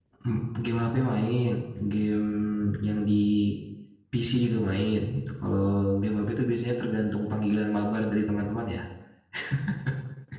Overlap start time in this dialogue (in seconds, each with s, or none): none